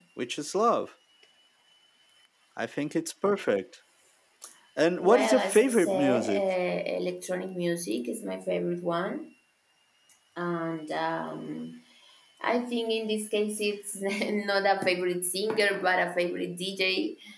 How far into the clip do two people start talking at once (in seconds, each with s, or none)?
5.0 s